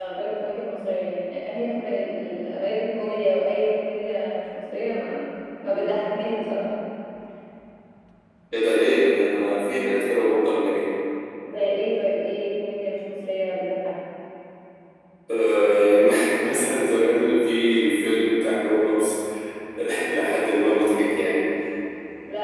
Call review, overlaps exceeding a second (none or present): none